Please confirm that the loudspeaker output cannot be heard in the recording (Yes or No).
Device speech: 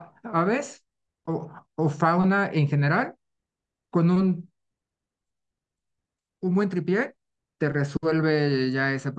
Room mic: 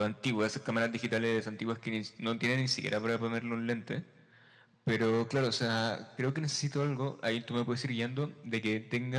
Yes